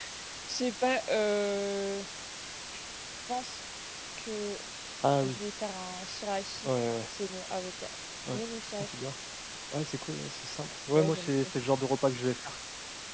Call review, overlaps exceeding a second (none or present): none